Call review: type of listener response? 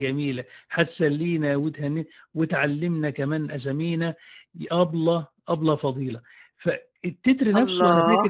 listening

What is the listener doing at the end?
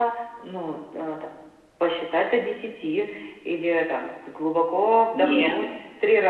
listening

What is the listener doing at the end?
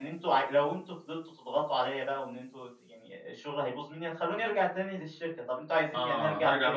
taking over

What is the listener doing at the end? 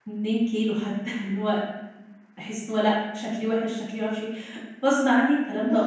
taking over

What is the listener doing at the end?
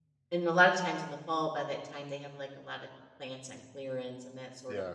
taking over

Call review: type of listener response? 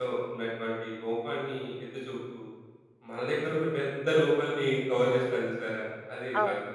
taking over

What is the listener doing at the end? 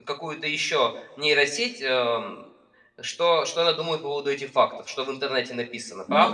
taking over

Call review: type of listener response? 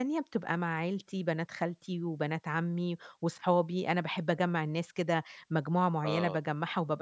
listening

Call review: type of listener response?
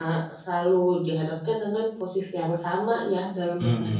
taking over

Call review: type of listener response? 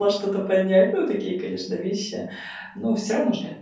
listening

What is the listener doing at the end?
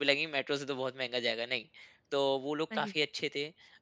listening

